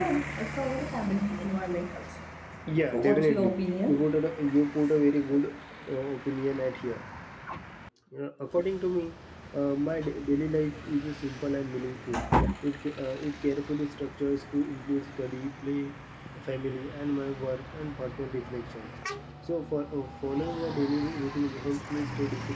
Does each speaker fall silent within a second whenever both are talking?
No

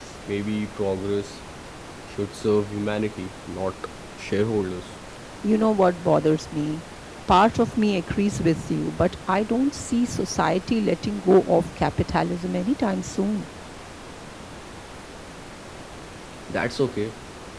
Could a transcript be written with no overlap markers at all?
Yes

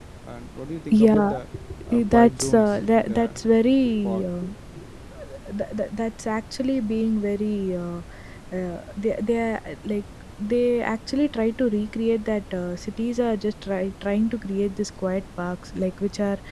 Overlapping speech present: Yes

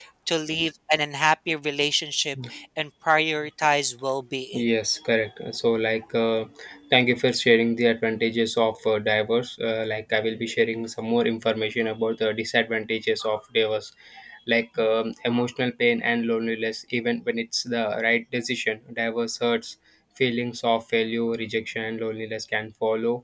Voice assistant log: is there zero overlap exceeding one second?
Yes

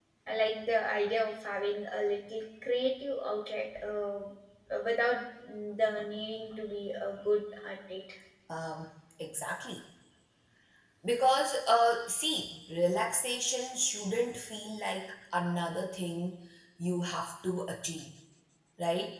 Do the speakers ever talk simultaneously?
No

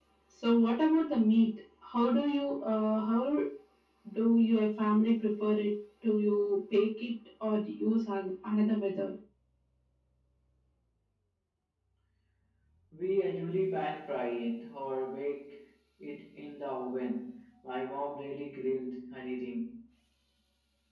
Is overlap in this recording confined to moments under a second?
Yes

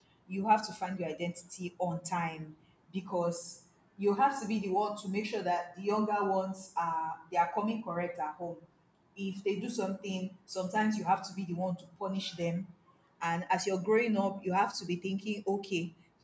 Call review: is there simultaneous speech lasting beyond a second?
No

